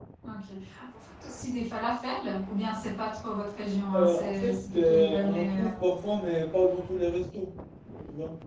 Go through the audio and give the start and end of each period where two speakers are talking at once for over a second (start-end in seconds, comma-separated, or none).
3.9-5.7